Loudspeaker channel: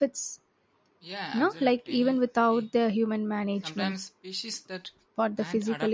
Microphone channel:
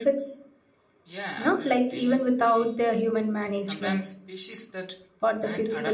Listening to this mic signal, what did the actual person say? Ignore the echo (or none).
none